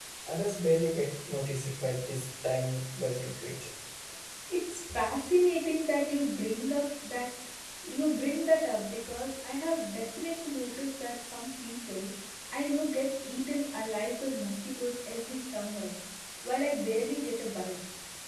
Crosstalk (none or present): none